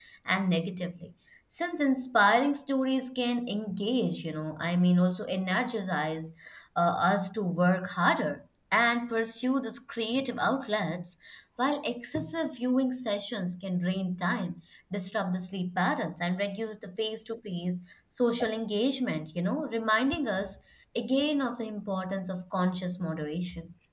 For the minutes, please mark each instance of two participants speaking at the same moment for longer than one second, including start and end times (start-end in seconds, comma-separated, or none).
none